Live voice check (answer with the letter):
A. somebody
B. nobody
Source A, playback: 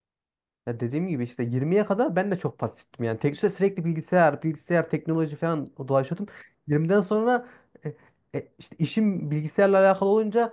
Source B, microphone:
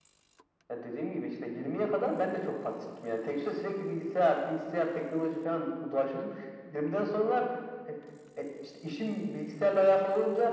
B